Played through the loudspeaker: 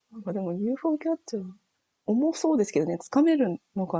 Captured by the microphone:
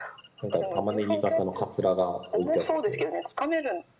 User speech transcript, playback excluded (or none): なんか、玉ねぎ型のカツラが置いてあって、